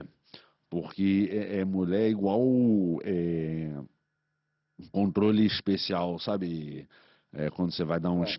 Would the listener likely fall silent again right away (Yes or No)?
Yes